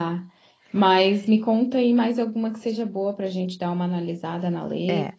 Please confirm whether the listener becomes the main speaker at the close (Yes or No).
Yes